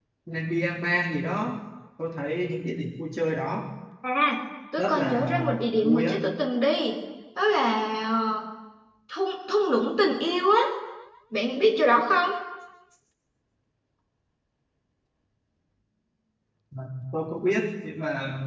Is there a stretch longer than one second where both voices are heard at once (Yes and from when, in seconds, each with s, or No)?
Yes, from 4.8 s